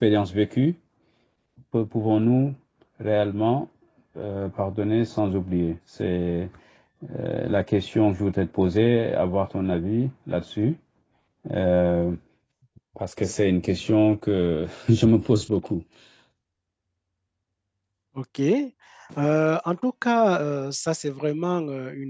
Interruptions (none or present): none